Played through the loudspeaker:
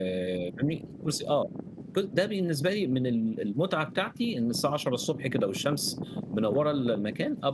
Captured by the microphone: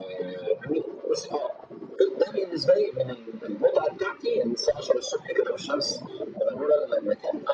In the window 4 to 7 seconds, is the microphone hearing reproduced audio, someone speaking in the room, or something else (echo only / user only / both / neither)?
echo only